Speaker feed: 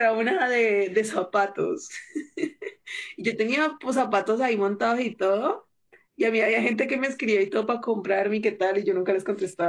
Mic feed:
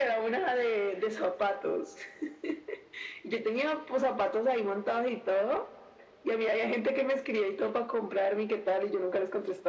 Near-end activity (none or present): none